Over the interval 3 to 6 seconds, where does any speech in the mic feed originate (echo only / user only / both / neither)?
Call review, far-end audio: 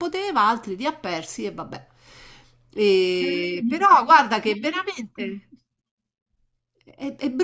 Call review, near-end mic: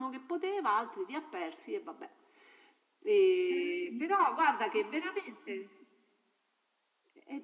echo only